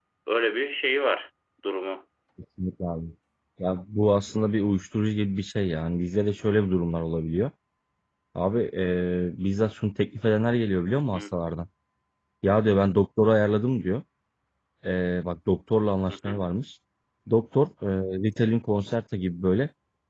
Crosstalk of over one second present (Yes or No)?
No